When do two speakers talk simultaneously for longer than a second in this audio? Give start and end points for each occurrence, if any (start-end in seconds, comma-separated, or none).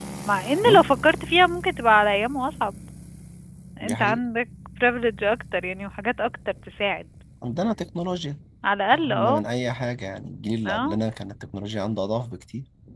none